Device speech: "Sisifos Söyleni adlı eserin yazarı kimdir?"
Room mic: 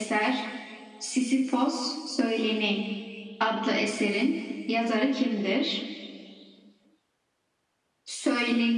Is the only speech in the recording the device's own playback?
Yes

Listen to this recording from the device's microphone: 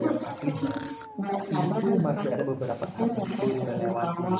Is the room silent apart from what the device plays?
No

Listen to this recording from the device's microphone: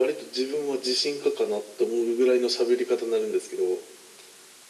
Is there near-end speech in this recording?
No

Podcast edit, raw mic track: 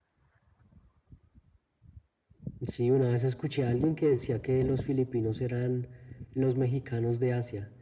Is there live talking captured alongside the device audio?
No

